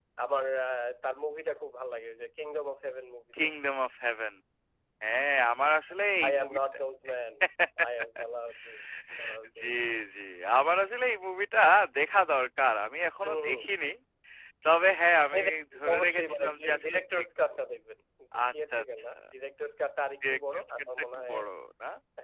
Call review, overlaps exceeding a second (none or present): present